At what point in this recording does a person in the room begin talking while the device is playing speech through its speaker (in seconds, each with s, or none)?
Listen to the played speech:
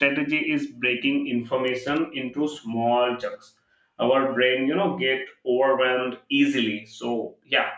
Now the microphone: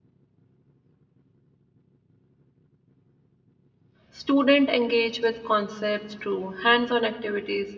4.1 s